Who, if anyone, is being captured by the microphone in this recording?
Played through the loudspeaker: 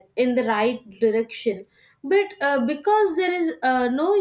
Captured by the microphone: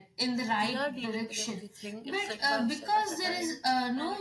both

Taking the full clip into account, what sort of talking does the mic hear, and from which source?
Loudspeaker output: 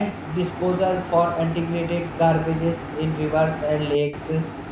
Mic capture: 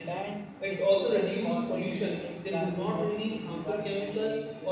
both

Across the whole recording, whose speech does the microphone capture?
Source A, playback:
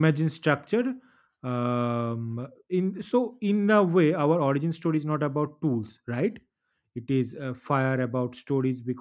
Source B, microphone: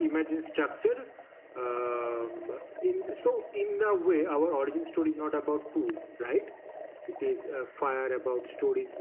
echo only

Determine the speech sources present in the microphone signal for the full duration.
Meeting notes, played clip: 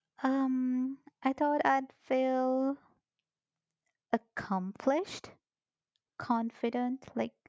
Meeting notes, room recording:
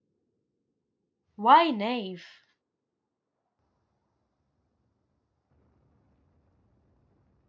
user only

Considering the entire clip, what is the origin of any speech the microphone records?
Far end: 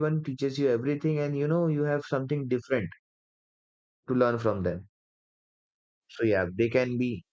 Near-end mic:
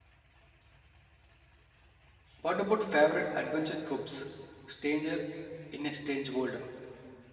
user only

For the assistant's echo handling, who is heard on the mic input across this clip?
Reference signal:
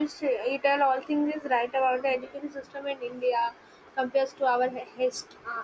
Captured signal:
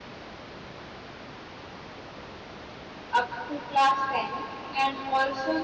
user only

